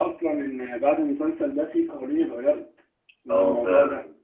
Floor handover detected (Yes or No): Yes